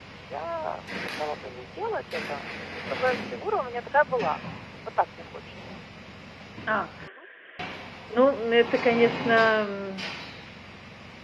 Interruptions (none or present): none